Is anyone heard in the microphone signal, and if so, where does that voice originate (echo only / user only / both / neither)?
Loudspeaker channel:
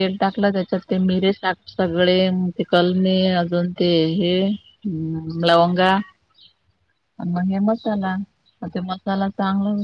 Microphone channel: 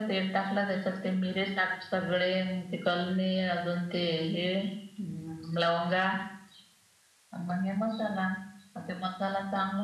echo only